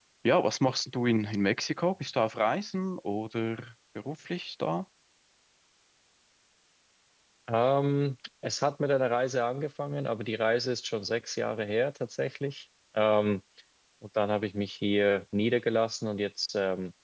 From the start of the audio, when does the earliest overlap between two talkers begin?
none

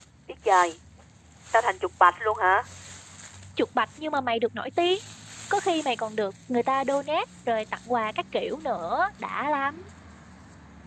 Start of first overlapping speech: none

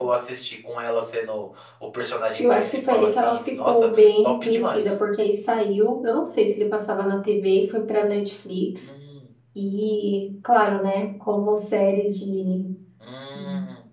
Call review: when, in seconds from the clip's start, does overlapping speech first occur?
2.4 s

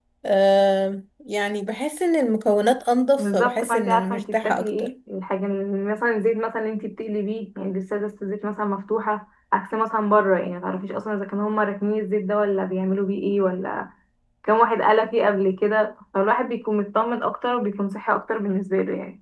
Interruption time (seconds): 3.2 s

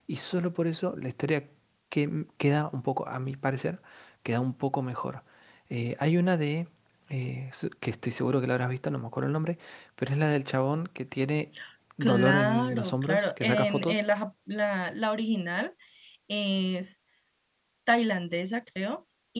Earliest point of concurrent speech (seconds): 12.0 s

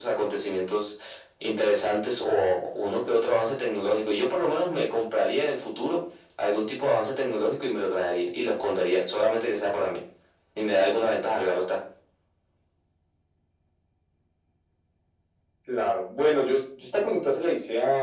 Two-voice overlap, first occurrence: none

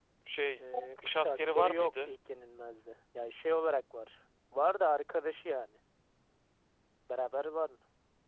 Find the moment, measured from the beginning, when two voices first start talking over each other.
0.6 s

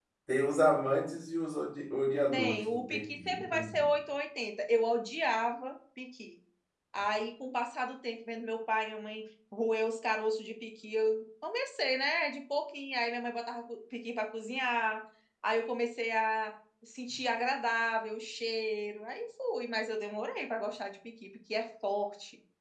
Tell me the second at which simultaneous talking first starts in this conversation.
2.3 s

